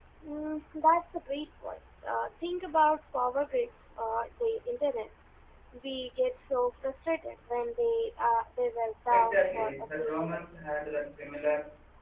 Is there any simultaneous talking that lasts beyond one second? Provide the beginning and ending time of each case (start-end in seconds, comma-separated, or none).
9.1-10.4